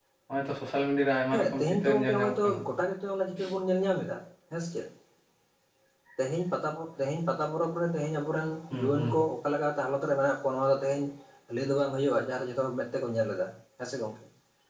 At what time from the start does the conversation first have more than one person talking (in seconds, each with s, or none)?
1.3 s